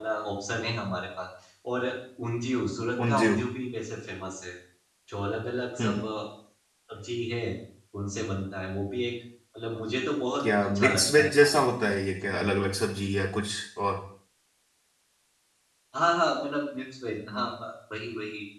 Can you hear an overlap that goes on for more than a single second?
Yes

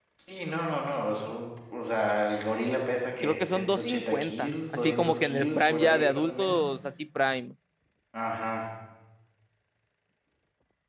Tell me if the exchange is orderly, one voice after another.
No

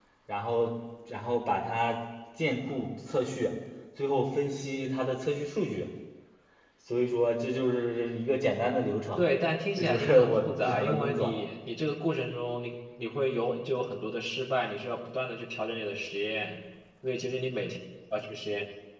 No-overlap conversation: No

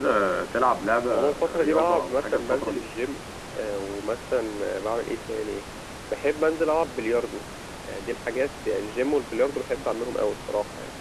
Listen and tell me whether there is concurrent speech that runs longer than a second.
Yes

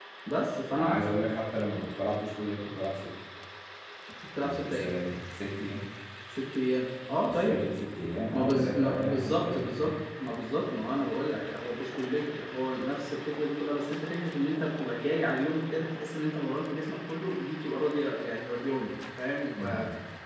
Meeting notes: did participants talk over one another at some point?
Yes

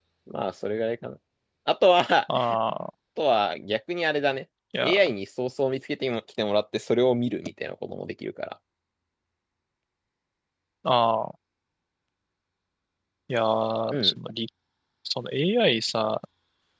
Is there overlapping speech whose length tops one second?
No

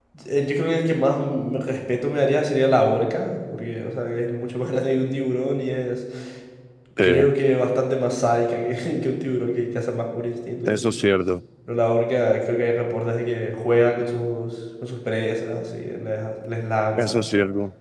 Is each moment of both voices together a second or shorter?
Yes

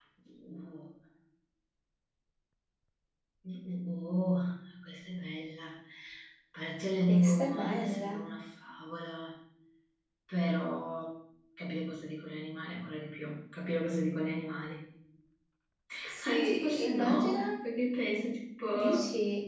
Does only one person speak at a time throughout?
No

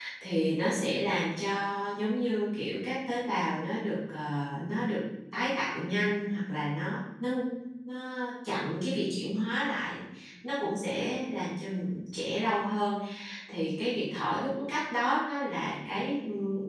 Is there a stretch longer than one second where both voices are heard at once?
No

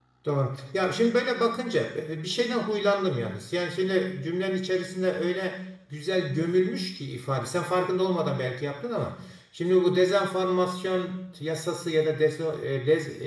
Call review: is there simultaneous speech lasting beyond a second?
No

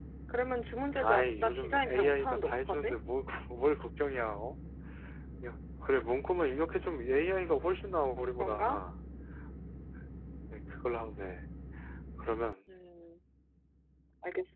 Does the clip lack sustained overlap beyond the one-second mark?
No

